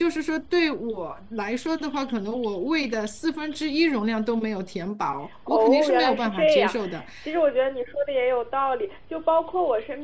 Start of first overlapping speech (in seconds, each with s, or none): 5.5 s